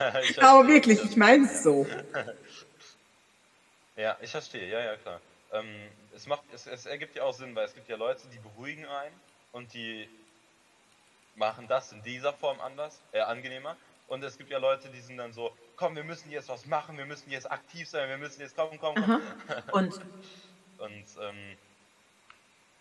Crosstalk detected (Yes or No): Yes